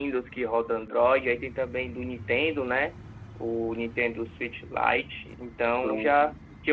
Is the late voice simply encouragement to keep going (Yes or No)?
Yes